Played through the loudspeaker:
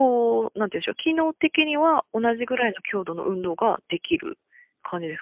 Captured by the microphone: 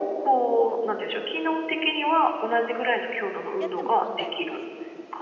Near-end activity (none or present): present